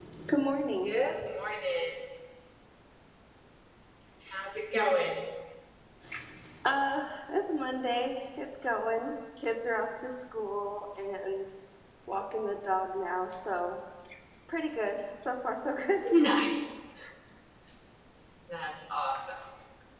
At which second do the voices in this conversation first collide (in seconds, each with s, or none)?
none